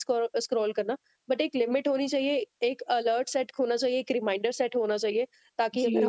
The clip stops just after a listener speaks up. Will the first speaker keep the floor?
No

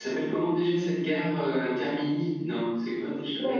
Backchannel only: No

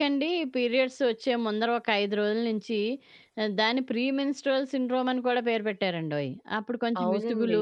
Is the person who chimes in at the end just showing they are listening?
Yes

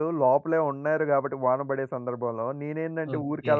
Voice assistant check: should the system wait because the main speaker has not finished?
Yes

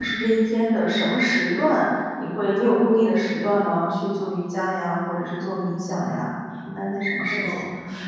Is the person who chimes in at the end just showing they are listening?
No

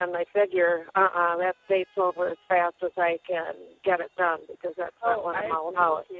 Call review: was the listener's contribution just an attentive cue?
No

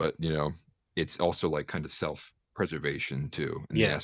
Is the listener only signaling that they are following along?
Yes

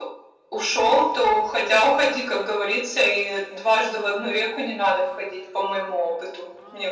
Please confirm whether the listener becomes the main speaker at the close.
Yes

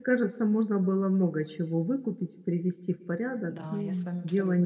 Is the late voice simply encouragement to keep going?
No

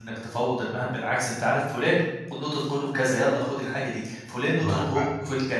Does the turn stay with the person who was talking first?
Yes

